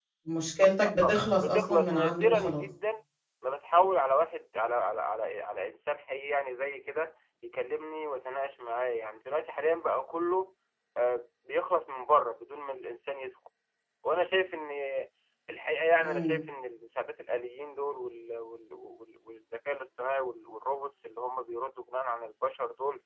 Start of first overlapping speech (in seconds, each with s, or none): 1.0 s